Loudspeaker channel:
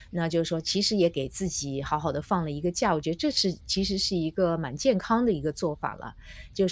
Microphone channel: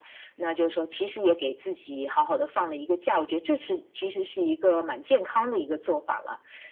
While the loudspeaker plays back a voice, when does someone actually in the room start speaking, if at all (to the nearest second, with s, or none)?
none